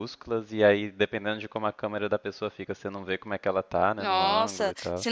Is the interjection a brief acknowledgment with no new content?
No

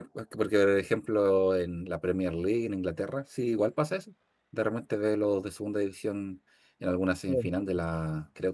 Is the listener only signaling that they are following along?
Yes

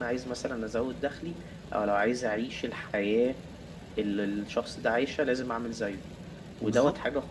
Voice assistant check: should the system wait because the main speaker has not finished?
Yes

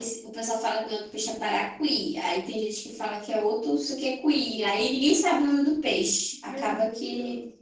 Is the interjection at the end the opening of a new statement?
Yes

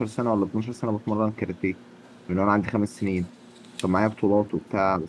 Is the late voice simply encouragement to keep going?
Yes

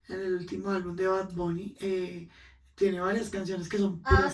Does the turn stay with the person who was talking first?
No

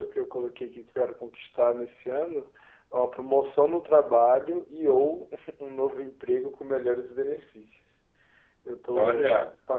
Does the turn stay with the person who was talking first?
Yes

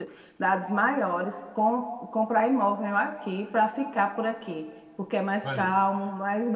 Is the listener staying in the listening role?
Yes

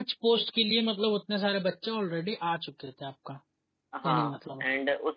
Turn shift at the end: Yes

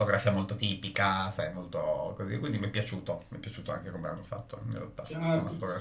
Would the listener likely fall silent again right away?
No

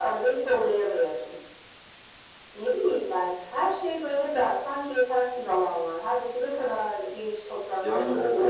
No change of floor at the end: No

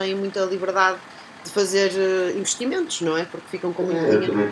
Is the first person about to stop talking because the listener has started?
Yes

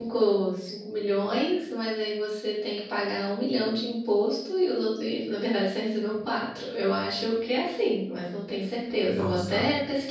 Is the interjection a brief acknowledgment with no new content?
No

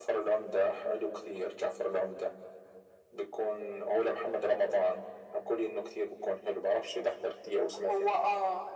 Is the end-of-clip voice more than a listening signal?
Yes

